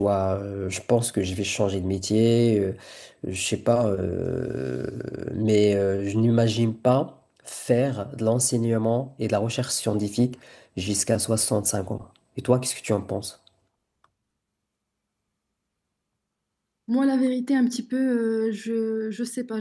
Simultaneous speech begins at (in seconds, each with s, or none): none